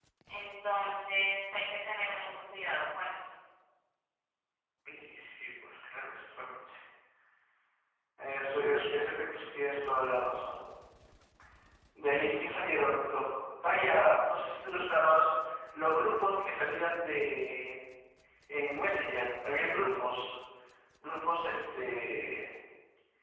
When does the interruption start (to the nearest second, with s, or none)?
none